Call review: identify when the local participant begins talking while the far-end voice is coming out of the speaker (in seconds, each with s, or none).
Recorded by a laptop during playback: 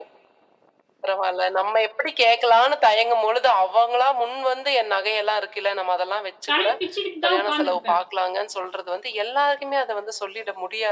6.5 s